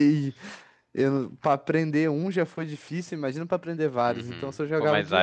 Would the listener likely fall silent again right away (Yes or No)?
No